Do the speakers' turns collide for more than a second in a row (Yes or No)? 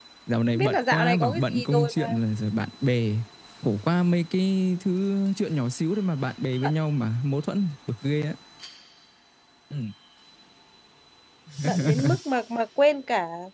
Yes